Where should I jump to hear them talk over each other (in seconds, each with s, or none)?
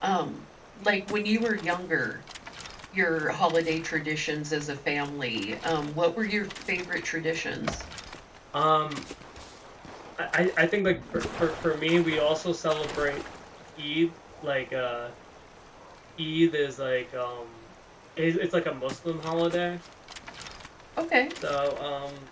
none